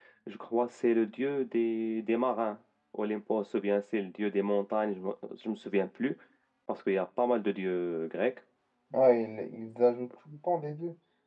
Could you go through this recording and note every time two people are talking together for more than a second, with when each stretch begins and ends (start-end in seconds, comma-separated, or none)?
none